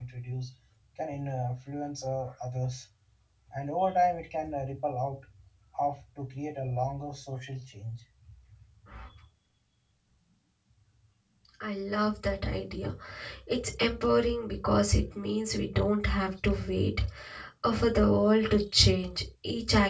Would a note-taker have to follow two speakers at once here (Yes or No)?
No